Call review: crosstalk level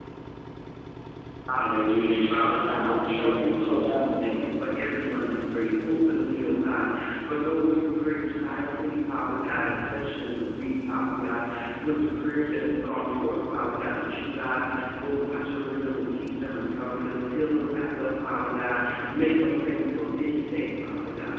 present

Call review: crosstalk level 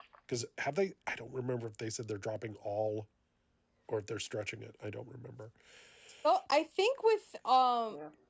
none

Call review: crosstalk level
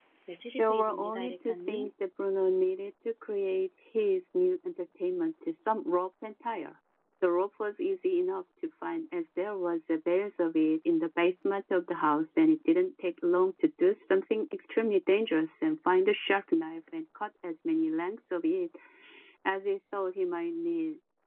present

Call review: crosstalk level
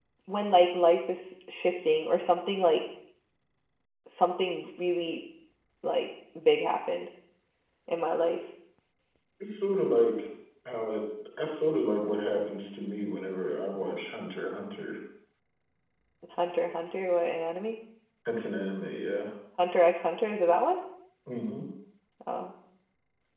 none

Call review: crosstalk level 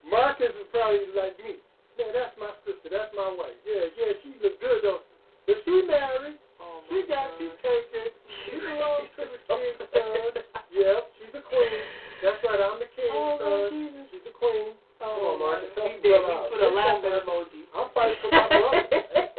present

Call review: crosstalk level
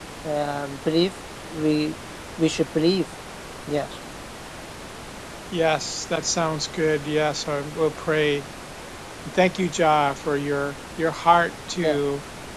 none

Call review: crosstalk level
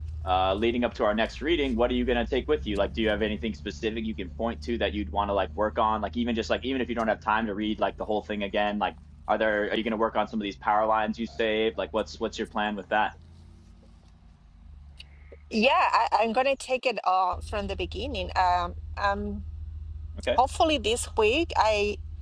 none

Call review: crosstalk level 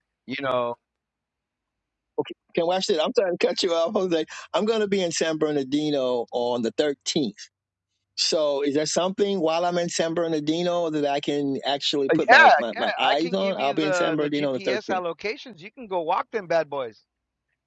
present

